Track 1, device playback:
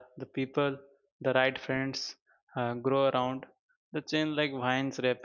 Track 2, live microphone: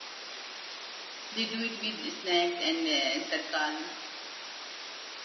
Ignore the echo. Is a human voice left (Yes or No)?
Yes